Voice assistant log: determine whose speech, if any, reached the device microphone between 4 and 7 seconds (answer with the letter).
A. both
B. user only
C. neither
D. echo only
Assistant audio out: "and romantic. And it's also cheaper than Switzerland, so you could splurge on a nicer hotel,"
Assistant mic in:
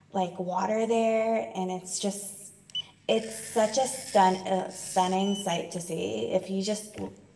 B